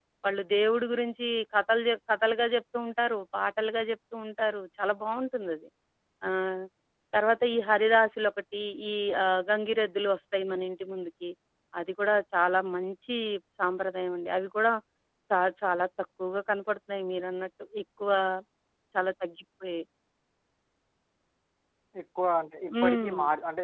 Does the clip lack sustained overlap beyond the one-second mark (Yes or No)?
Yes